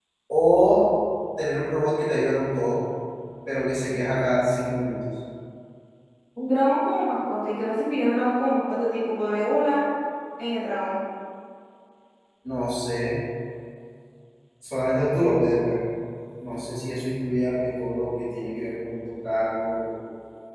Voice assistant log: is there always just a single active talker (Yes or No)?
Yes